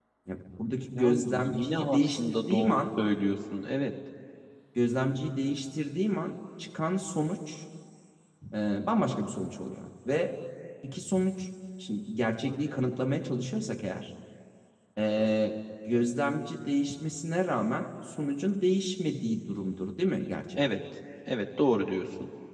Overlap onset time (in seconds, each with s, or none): 1.0 s